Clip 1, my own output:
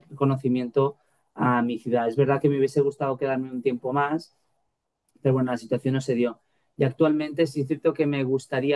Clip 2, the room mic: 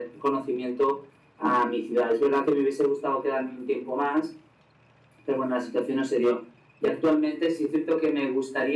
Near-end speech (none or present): none